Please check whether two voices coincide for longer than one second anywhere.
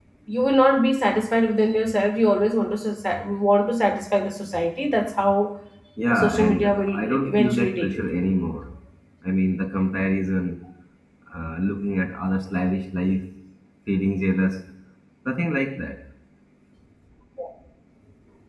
Yes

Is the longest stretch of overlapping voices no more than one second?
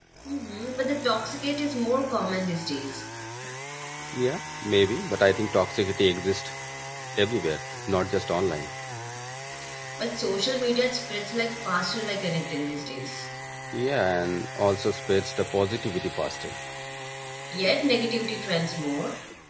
Yes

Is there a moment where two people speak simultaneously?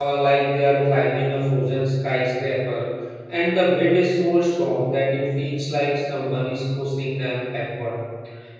No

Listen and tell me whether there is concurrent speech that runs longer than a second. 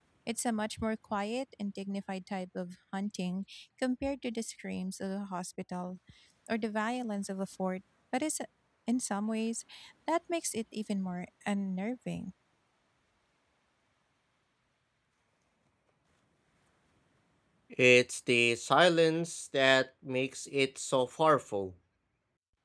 No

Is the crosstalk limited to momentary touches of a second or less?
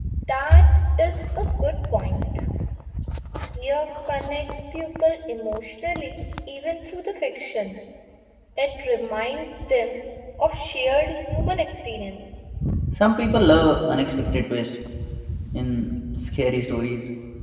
Yes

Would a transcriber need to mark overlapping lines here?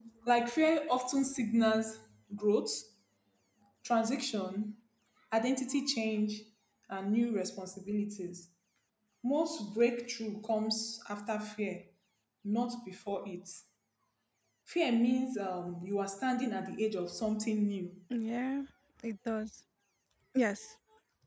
No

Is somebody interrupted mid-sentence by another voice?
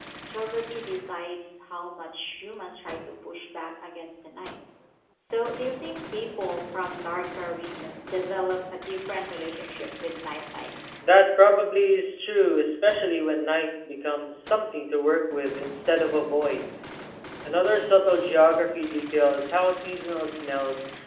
No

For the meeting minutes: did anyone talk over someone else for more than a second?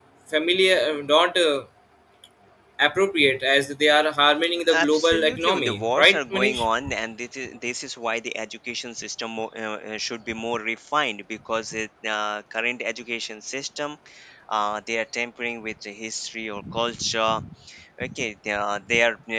Yes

